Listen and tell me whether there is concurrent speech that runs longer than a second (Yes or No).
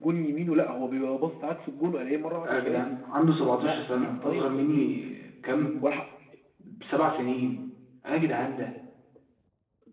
Yes